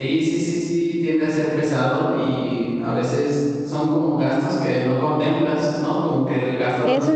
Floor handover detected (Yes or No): Yes